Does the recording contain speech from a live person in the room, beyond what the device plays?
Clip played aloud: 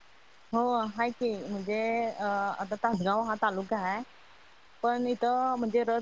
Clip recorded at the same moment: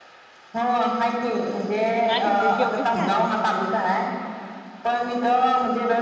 Yes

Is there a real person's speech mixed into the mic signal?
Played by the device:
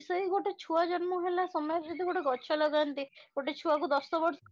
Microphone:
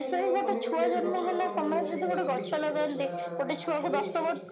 Yes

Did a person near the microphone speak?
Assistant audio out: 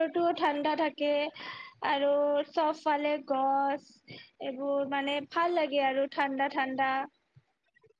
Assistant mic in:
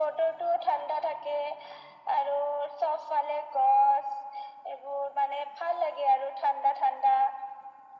No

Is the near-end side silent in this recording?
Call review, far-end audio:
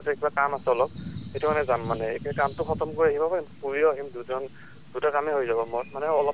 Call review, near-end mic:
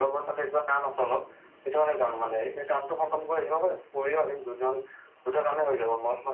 Yes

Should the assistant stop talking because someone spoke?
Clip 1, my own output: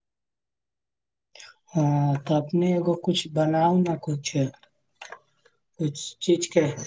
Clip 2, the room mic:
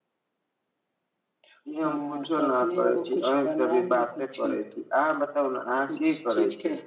Yes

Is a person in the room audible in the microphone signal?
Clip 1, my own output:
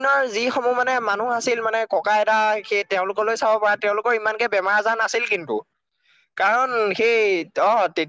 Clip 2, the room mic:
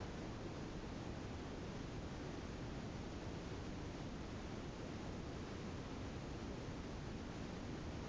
No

